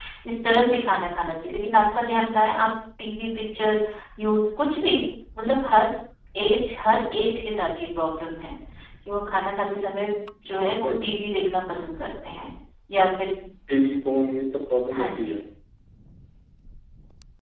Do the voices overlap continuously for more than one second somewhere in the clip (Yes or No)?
No